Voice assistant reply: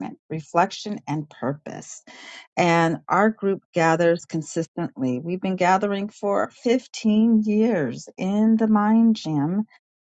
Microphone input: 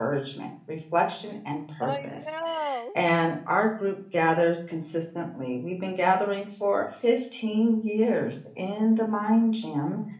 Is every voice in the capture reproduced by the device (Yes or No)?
No